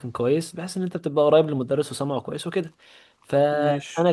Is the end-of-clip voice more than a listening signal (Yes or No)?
No